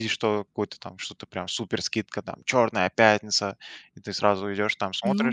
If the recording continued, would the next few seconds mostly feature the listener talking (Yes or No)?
Yes